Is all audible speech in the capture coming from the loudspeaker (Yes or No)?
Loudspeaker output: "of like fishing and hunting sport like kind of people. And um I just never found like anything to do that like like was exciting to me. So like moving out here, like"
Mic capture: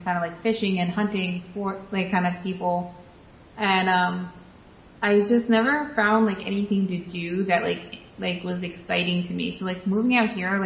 Yes